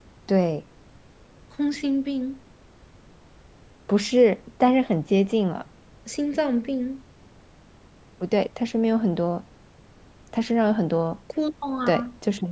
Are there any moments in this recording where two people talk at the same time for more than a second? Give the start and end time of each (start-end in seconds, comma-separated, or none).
none